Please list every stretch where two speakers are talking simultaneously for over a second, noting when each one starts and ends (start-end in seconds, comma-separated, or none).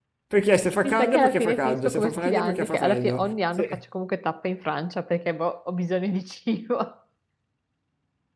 0.8-3.8